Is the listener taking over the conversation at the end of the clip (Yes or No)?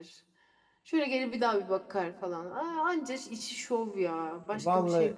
Yes